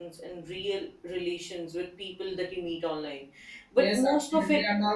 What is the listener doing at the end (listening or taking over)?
taking over